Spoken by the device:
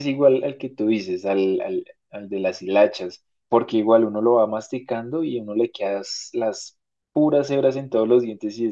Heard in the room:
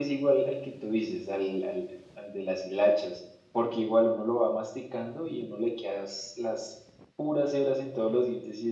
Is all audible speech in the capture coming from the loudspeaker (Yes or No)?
Yes